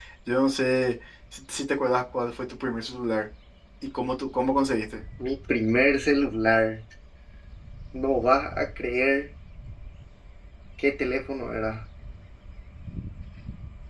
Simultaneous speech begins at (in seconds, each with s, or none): none